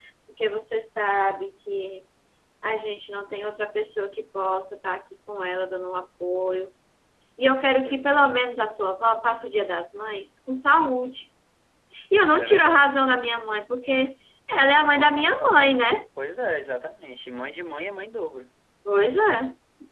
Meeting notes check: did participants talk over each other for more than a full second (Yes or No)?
Yes